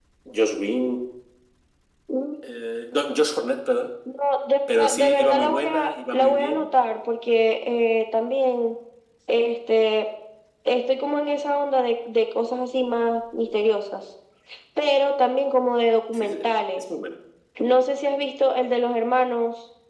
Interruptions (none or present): present